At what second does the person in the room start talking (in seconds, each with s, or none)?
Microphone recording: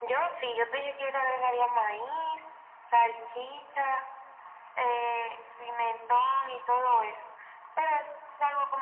none